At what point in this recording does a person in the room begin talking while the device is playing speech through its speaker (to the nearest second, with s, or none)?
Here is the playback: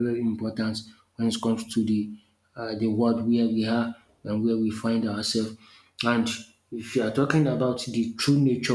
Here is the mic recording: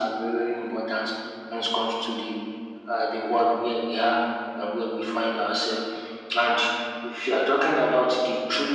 none